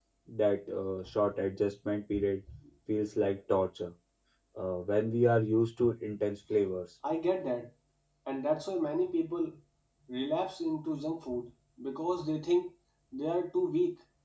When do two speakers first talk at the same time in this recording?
none

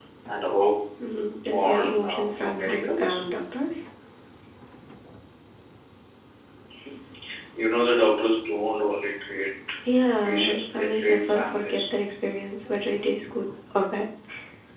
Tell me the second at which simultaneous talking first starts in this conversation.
1.3 s

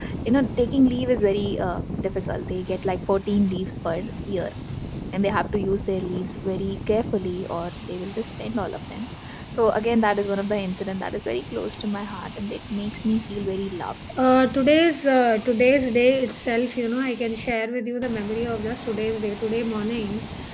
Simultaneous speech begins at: none

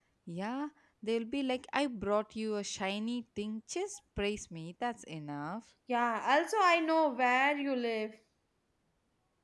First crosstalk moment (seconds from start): none

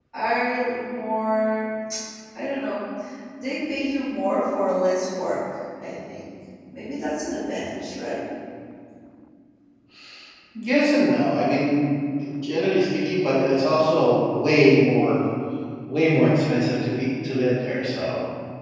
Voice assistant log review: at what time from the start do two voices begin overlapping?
none

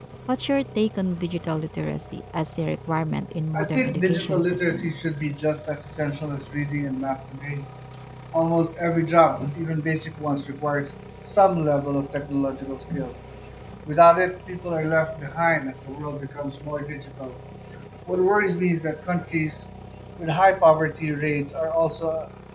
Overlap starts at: 3.5 s

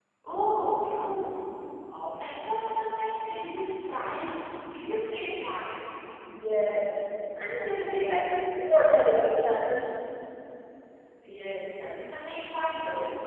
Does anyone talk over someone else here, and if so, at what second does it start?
none

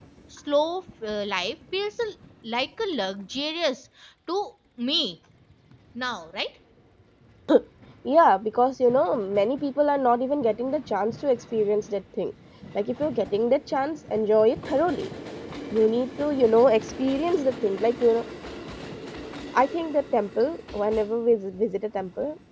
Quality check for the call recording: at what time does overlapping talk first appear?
none

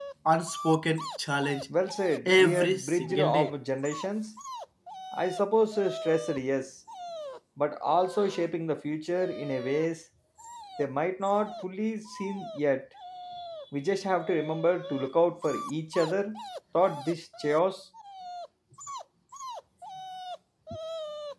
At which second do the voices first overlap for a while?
2.2 s

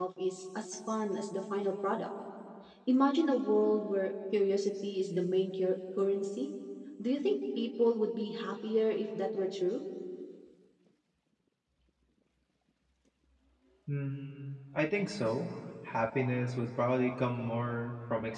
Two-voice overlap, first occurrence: none

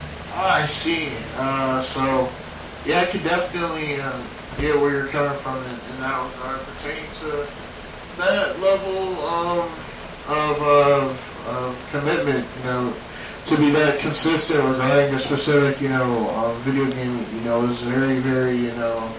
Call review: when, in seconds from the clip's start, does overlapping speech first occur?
none

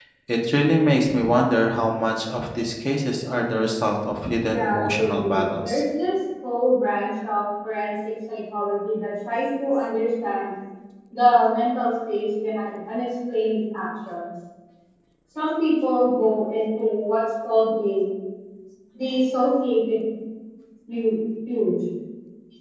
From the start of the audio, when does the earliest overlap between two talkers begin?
4.5 s

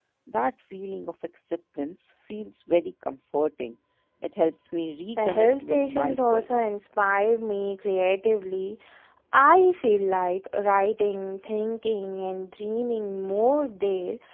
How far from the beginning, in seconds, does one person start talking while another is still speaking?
5.2 s

